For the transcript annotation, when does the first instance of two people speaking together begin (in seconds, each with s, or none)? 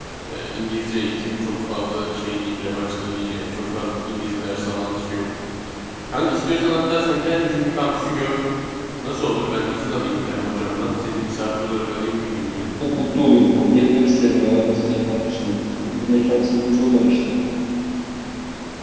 none